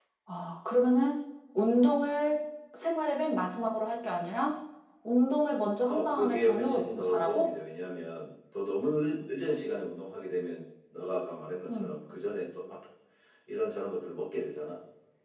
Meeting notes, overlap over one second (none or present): present